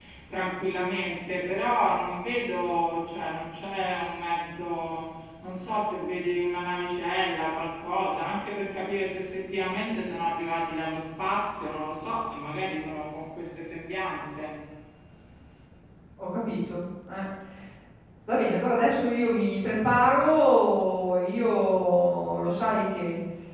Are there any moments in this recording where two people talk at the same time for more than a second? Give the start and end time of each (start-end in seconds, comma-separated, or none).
none